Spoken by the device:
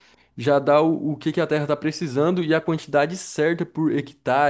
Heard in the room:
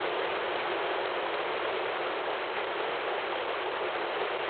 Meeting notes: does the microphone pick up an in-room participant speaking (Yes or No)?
No